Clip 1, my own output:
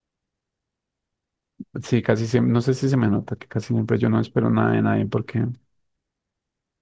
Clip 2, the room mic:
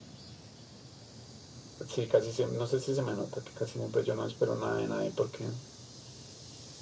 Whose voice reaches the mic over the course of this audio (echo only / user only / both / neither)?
echo only